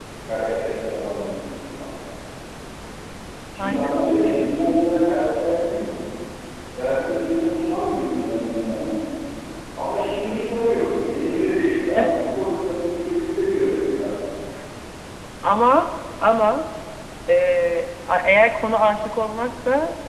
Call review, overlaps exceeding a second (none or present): none